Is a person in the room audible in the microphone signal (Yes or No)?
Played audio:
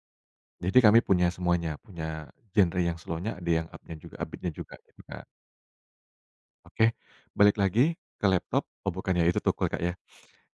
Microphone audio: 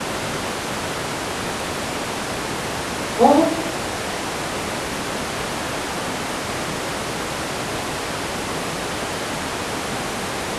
Yes